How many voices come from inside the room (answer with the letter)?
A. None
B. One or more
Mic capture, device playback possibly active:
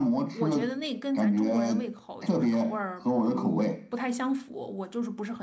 B